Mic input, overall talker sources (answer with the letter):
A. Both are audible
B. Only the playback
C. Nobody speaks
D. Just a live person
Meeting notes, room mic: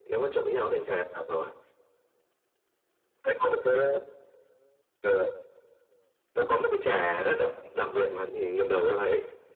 B